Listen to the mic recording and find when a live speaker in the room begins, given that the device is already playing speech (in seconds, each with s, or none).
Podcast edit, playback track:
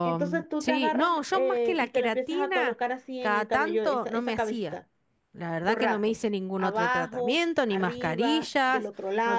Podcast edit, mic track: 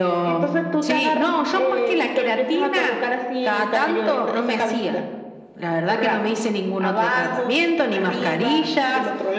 none